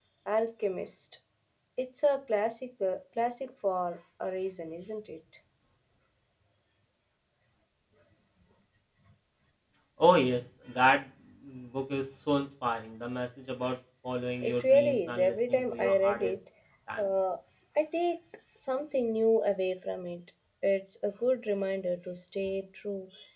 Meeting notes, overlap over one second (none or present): present